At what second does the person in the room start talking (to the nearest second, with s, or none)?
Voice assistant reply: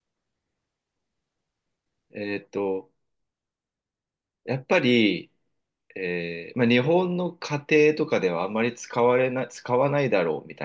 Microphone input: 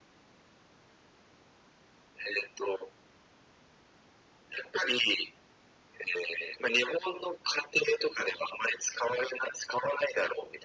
none